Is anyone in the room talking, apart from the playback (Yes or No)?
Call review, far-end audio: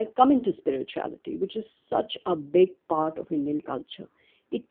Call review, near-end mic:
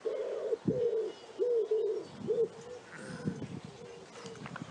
No